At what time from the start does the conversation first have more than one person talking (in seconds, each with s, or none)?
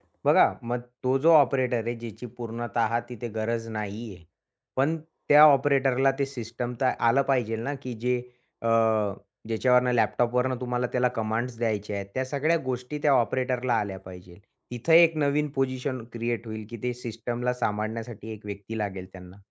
none